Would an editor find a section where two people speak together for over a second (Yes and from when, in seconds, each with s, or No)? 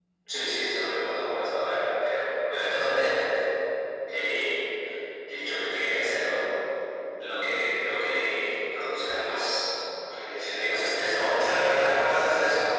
No